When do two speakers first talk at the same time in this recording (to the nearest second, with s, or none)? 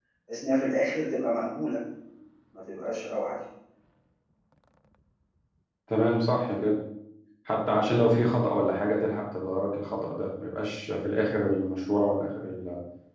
none